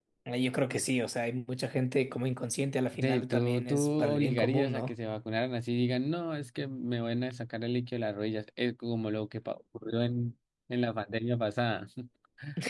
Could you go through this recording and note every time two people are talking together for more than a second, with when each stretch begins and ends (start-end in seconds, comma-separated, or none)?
3.0-4.9